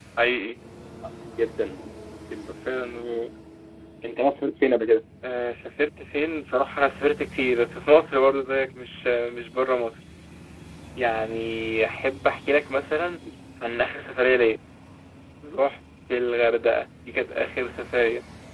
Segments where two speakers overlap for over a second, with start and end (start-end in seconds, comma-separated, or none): none